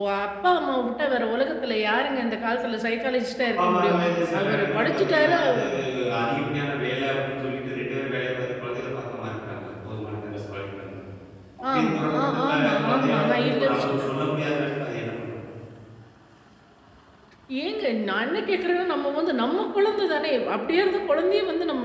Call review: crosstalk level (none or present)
present